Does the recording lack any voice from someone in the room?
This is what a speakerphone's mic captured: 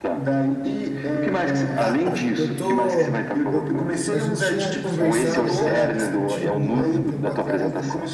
No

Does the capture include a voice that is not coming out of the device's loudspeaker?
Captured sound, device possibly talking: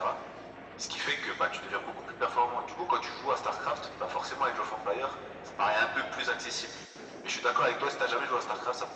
No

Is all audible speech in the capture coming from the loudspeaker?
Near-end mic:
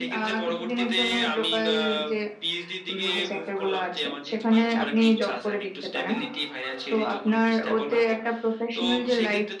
Yes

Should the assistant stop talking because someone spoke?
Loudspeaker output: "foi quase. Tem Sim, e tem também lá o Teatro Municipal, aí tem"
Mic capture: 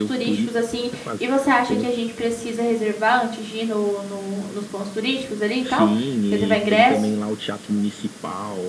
Yes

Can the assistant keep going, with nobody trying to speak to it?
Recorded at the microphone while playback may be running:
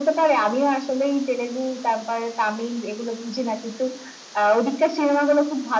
Yes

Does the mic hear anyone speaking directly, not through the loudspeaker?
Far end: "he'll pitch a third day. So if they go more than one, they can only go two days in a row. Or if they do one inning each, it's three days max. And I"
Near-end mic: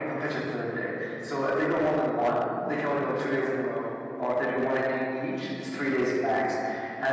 No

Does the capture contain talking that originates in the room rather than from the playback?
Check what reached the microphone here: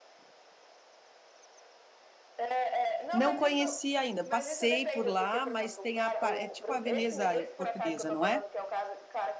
Yes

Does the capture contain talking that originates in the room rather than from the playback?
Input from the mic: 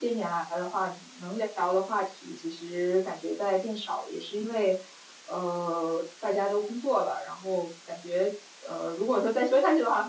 Yes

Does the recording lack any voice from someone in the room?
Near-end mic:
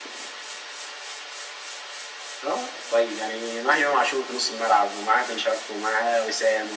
Yes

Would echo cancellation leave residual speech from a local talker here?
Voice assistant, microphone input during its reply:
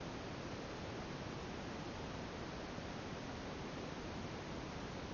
No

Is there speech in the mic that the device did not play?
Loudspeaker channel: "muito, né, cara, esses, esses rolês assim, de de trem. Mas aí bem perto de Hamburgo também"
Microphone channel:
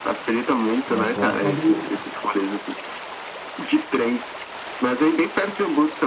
Yes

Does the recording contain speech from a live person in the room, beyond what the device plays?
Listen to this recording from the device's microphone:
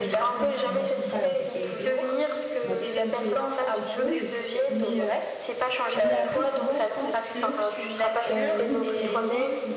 Yes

